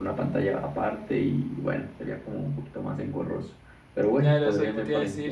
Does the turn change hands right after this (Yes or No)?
Yes